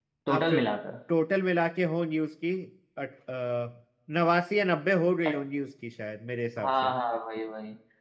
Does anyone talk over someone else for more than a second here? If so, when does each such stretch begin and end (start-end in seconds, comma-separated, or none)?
none